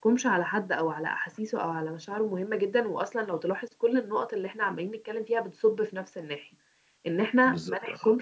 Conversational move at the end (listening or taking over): listening